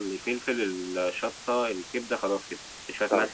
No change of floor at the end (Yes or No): Yes